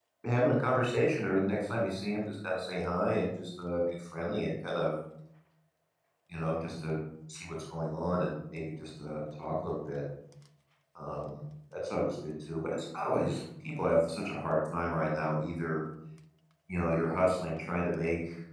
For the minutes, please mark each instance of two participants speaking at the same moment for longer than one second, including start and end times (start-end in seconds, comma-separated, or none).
none